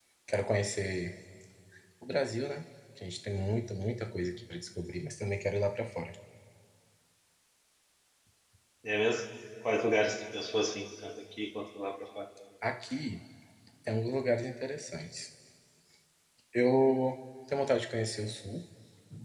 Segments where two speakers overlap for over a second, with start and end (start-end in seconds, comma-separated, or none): none